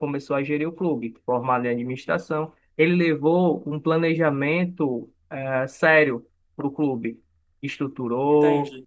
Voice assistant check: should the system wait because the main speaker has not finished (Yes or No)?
Yes